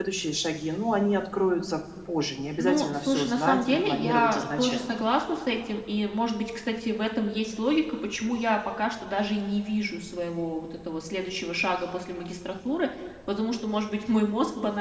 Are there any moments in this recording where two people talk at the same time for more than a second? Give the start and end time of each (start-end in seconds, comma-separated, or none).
2.6-5.0